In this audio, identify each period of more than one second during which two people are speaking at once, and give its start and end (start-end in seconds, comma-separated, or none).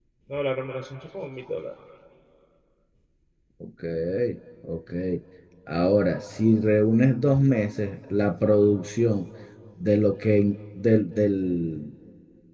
none